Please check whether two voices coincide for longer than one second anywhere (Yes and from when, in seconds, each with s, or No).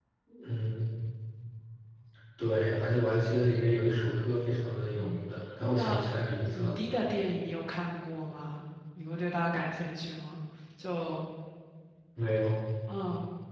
No